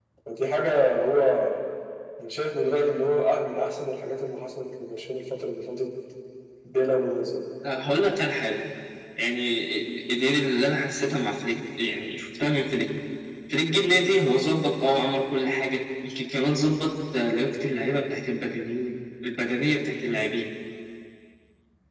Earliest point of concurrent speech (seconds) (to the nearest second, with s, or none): none